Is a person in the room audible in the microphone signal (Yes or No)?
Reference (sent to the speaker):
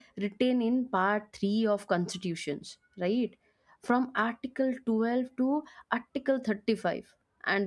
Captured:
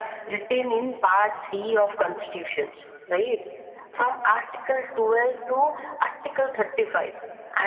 No